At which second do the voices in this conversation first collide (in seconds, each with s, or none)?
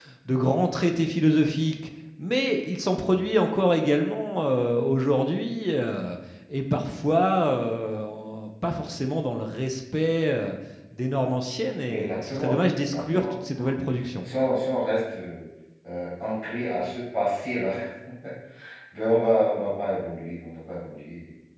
11.9 s